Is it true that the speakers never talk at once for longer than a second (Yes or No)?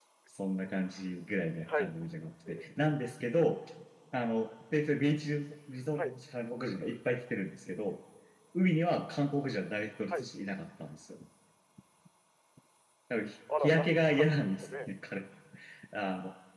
No